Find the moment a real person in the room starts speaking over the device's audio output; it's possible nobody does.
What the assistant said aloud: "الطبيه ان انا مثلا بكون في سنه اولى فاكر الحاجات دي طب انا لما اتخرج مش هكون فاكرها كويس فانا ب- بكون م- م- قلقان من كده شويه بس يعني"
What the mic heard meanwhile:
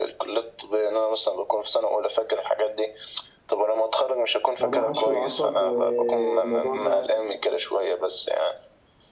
4.6 s

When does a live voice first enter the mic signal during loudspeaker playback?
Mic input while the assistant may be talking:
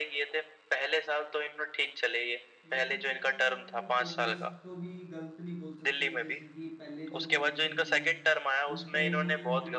2.6 s

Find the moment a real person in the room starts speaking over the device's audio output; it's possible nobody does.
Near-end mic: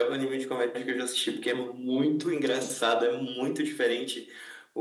none

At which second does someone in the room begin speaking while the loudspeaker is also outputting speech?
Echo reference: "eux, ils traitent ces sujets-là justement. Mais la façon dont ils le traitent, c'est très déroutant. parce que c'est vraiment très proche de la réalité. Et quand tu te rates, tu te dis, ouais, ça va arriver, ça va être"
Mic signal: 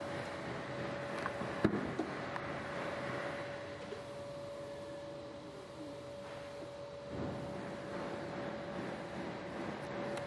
none

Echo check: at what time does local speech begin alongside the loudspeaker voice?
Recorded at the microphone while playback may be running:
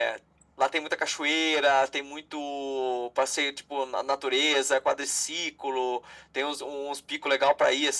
none

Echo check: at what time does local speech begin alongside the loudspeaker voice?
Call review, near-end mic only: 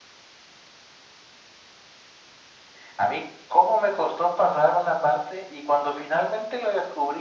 none

